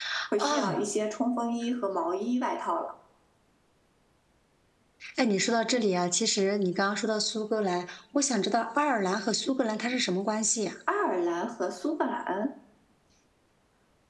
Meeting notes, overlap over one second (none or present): none